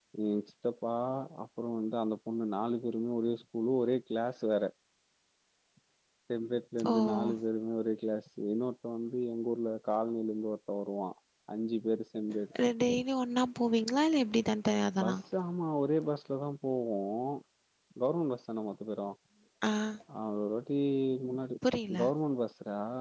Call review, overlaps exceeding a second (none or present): none